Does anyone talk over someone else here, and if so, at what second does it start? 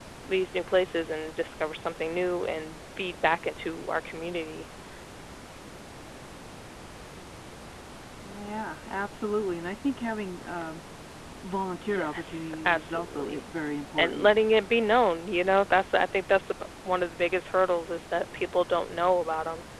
12 s

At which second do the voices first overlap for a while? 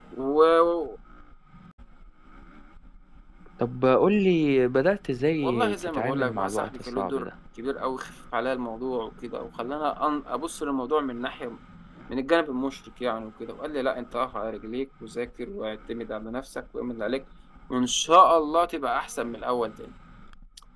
5 s

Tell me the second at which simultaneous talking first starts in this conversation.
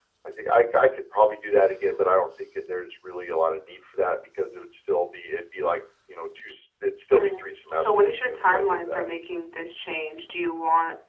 7 s

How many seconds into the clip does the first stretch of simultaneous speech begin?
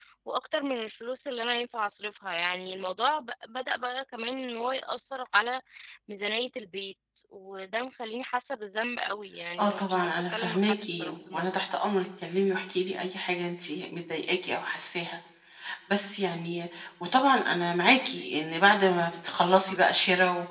10 s

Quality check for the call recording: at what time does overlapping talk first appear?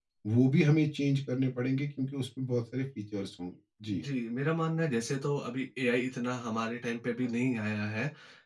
none

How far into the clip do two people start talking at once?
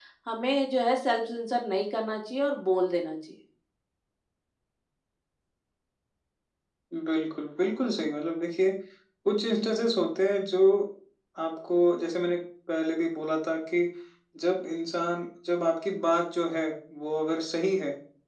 none

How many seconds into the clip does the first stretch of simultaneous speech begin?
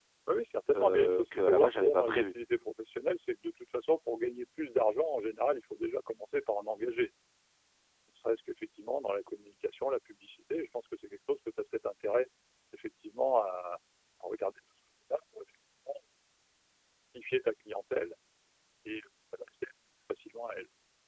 1 s

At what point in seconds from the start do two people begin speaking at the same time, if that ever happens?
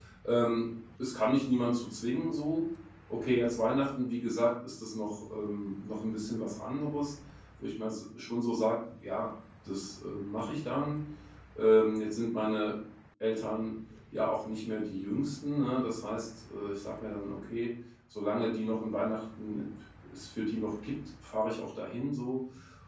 none

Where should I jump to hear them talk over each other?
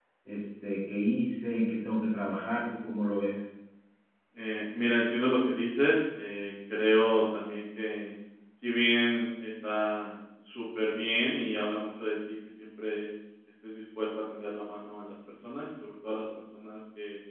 none

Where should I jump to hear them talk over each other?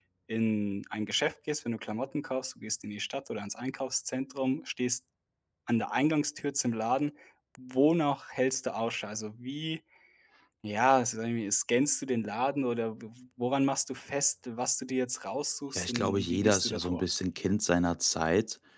16 s

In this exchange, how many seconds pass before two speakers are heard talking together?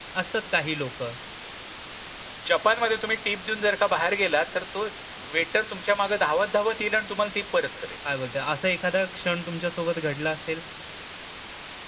none

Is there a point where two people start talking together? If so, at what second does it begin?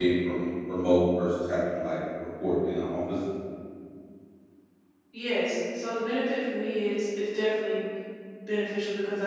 none

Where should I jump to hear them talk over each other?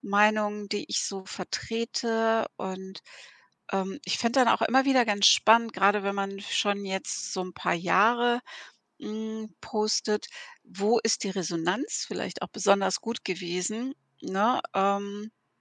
none

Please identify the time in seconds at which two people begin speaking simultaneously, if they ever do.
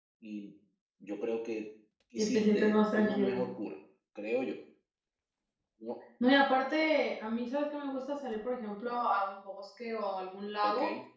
2 s

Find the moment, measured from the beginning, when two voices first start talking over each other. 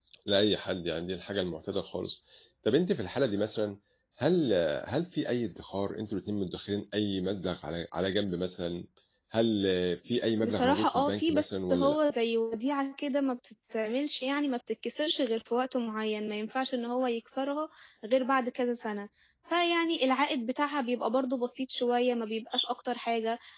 10 s

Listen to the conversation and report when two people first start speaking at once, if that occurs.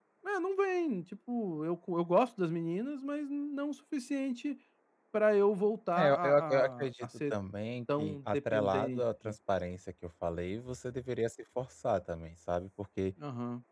6 s

